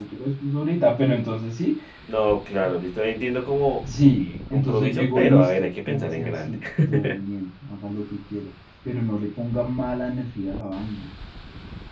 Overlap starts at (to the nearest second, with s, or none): 4 s